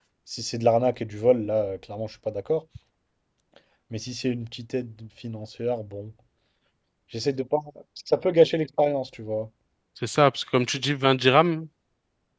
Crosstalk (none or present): none